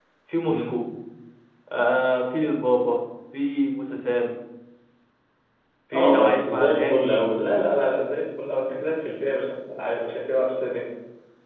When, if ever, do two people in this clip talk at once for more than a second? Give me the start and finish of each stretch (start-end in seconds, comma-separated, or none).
5.9-7.2